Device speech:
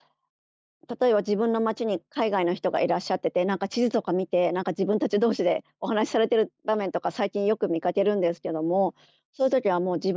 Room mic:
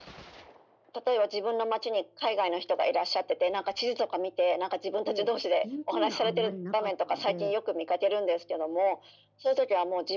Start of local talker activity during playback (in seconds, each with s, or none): 5.0 s